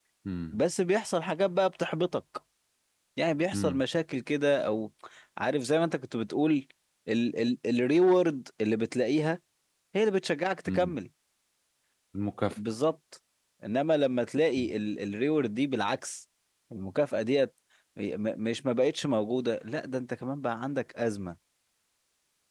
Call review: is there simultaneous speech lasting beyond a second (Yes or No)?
No